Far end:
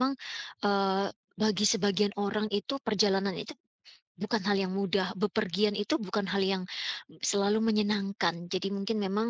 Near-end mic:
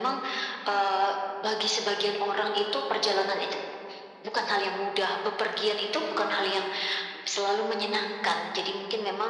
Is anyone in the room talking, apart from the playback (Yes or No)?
No